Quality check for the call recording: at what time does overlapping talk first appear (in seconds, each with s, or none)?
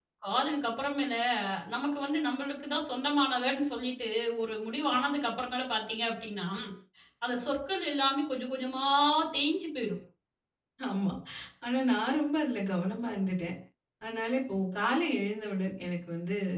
none